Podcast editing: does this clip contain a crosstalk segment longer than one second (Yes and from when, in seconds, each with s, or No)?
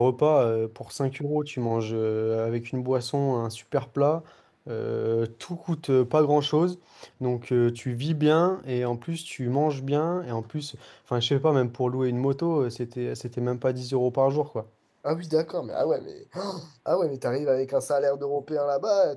No